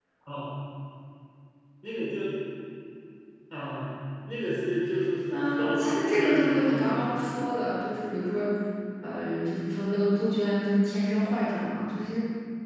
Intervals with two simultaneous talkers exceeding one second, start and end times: 5.3-7.2

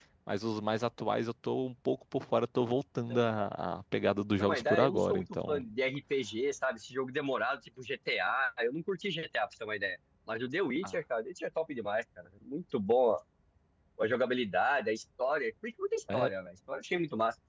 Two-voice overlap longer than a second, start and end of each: 4.4-5.6

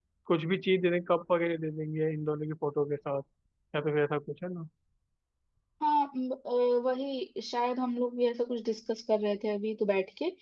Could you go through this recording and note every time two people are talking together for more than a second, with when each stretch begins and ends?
none

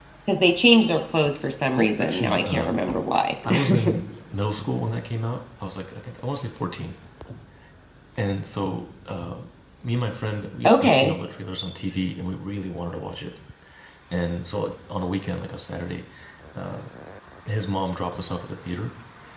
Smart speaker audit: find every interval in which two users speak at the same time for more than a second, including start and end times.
1.4-2.8

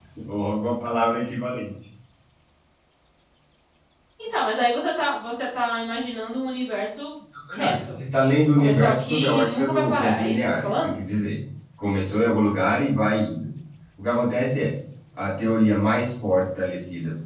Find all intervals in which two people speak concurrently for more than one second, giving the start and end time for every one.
8.5-10.7

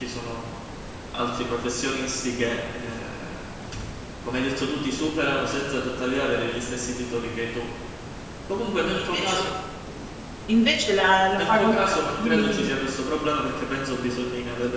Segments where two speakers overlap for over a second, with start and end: 11.4-12.8

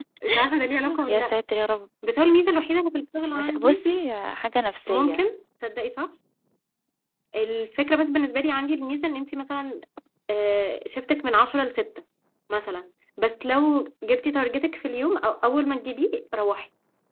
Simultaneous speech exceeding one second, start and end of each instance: none

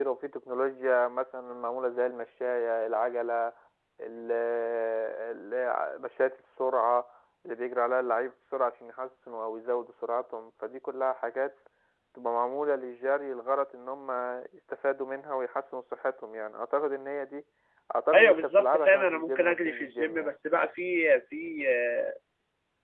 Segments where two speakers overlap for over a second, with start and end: 18.1-20.4

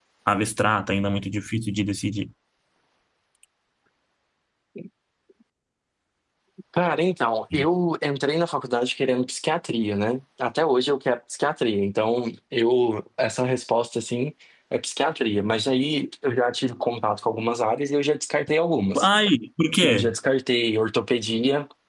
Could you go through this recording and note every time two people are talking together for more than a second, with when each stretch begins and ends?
none

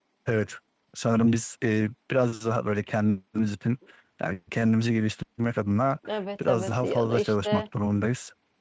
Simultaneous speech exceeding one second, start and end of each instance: 6.4-7.6

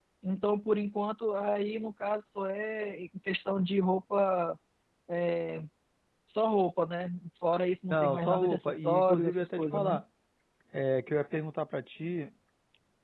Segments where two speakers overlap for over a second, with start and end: 7.9-10.0

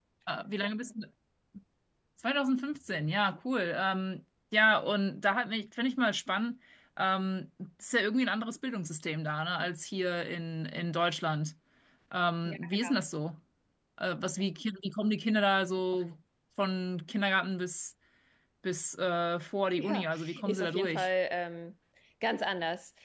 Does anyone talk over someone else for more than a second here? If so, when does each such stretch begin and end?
19.8-21.1

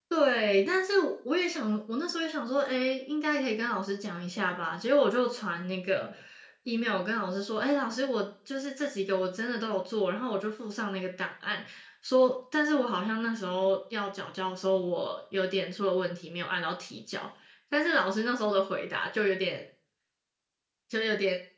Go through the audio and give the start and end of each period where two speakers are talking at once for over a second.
none

